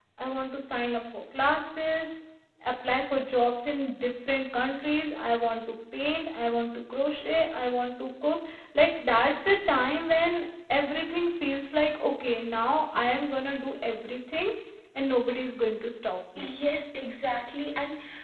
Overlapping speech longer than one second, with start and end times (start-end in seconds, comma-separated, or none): none